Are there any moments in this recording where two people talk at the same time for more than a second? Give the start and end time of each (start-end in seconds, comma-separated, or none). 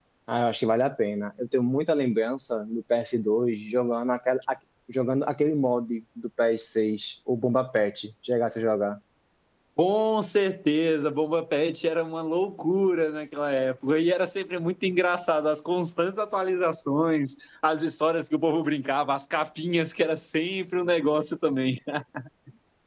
none